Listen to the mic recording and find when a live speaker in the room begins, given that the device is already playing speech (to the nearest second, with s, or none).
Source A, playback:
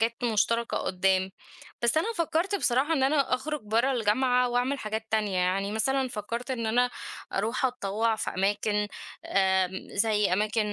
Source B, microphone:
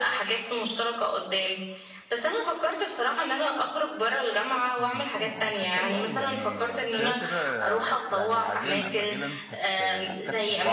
5 s